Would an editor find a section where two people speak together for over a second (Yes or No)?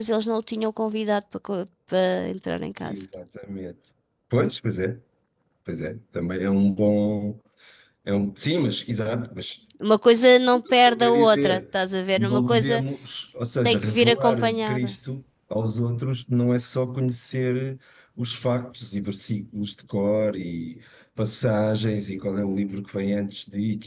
Yes